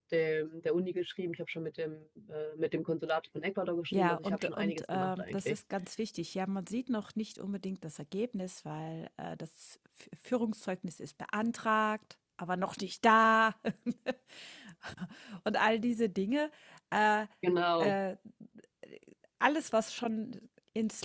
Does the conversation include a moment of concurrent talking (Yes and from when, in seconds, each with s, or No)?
Yes, from 3.9 s